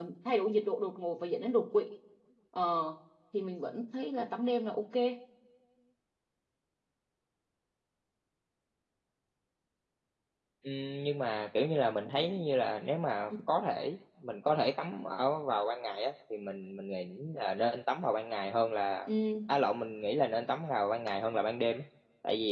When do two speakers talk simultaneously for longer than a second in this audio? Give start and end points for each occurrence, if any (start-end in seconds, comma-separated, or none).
none